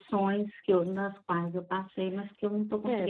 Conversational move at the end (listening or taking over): taking over